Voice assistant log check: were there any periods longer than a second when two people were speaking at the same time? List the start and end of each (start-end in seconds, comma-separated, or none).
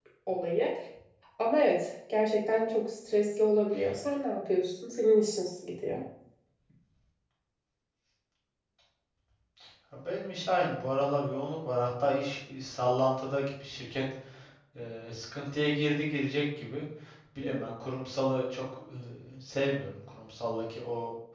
none